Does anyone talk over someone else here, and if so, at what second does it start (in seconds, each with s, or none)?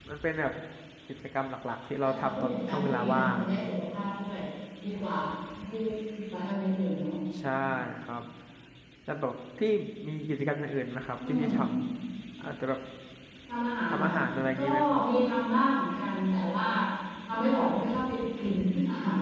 2.0 s